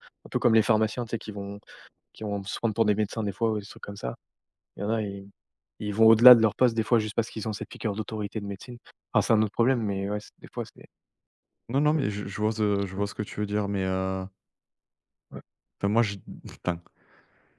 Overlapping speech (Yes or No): No